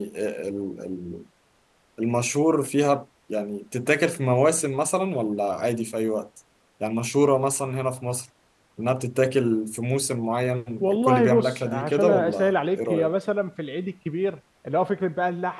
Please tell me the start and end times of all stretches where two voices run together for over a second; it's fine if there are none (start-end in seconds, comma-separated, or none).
10.8-13.1